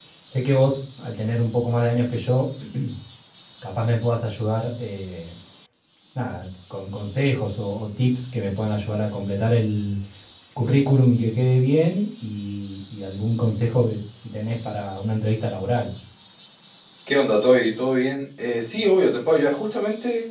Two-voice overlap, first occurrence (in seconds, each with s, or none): none